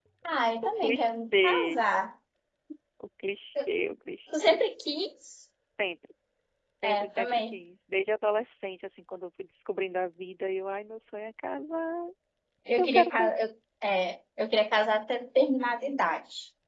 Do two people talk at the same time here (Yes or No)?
Yes